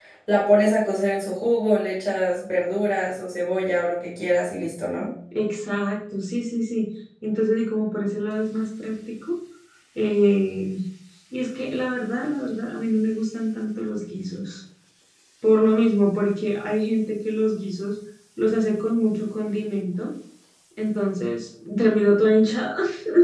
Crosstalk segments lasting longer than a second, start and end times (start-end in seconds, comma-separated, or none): none